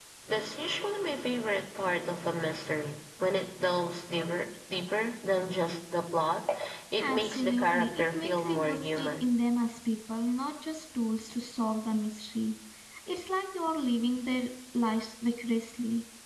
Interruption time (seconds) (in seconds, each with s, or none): 7.0 s